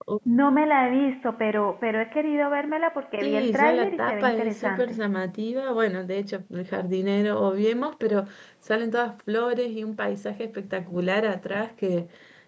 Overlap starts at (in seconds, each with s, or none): 3.2 s